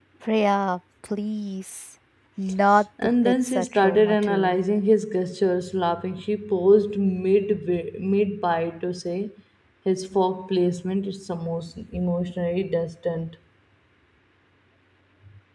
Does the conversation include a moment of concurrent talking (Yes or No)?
Yes